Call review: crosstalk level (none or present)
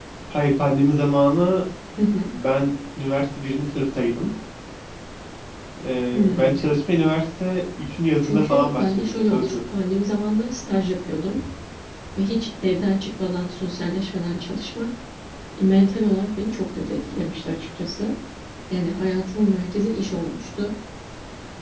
present